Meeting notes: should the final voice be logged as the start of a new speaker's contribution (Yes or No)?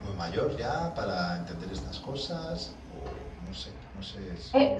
Yes